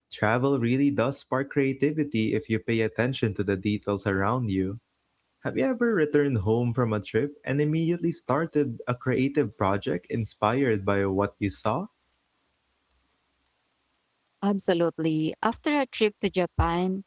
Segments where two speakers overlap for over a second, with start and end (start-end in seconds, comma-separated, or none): none